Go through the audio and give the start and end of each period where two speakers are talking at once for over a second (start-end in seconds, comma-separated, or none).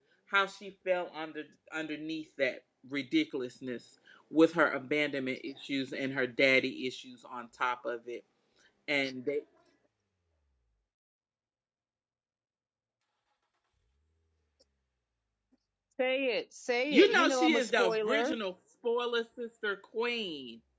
16.9-18.4